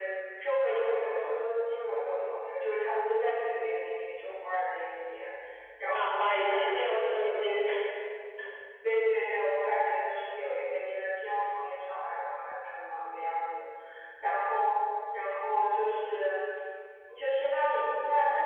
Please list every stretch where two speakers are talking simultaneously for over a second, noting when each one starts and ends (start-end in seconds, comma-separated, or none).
5.9-7.6